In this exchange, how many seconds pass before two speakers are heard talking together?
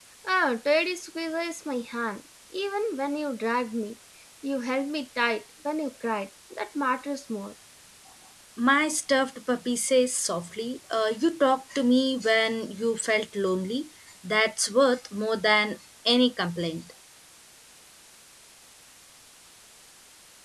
none

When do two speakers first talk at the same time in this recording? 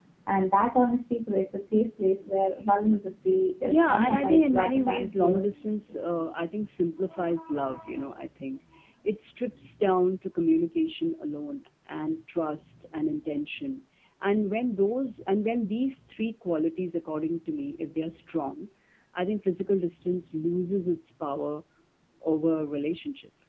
4 s

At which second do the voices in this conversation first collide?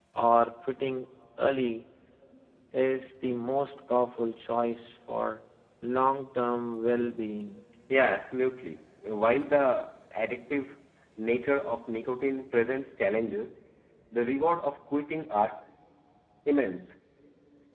none

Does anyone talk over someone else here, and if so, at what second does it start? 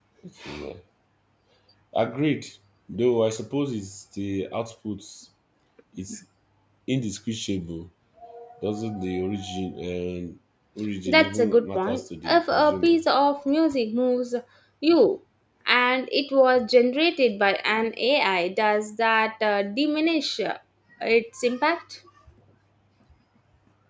11 s

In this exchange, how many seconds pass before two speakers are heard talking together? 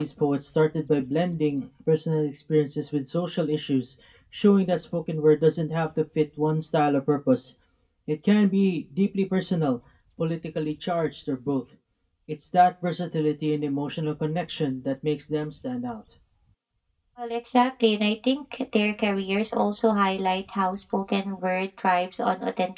none

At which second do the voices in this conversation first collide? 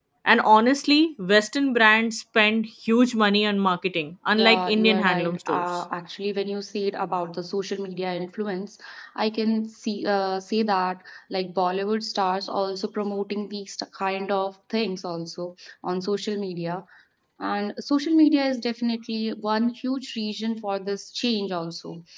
4 s

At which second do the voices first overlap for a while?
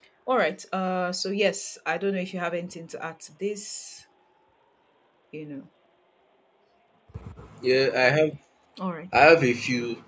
none

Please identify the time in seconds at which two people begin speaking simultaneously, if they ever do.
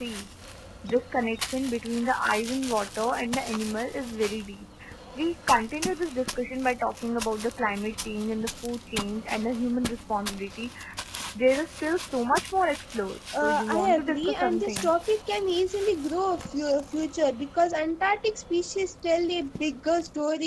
13 s

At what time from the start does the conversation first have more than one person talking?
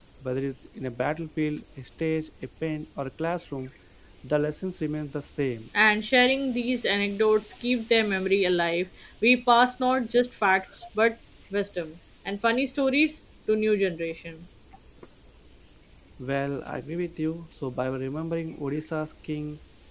none

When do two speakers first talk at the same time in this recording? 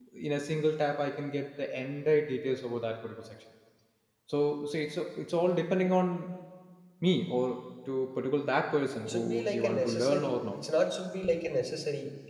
9 s

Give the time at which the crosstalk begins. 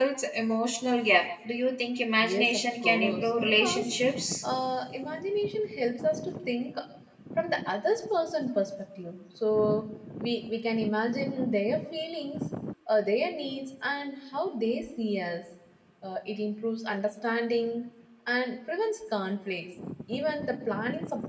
2 s

